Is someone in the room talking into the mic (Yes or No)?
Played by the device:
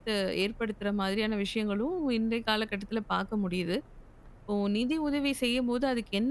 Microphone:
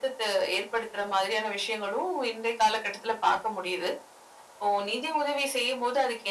No